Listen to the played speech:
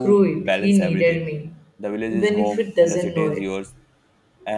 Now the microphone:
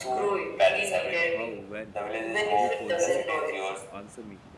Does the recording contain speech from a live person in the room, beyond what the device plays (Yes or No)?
Yes